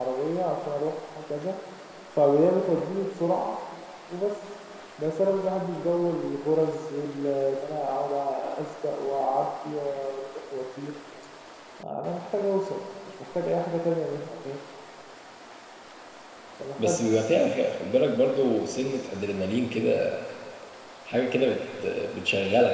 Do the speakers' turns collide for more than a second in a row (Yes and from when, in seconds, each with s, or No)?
No